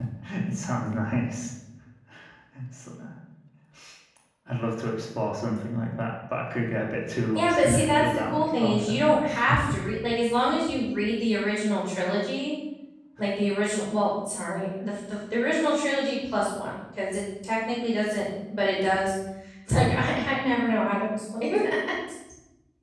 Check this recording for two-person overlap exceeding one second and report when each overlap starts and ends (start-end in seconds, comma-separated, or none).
7.3-9.1